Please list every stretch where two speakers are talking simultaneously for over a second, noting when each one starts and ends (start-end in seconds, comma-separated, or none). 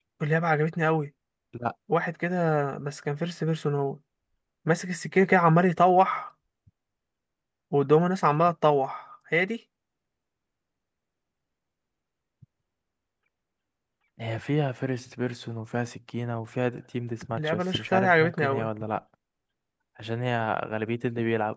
17.4-18.7